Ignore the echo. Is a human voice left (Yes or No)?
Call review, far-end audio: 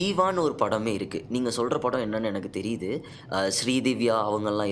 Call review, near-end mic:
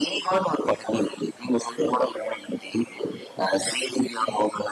No